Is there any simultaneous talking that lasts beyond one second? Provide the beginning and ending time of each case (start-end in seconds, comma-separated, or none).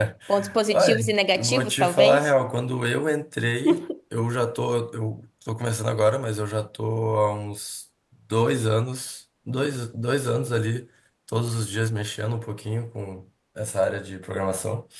0.7-2.3